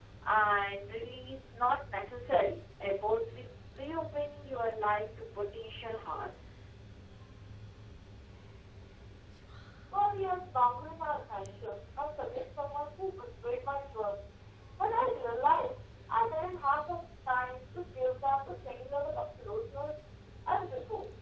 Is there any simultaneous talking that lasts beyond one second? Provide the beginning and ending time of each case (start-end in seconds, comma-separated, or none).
none